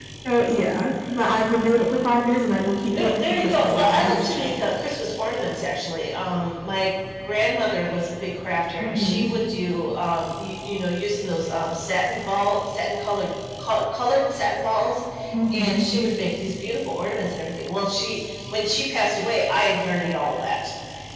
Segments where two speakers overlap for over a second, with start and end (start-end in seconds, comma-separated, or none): 3.0-4.5